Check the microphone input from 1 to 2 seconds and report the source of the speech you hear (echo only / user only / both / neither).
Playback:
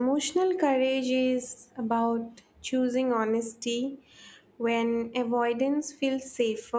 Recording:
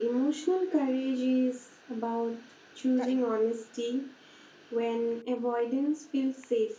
echo only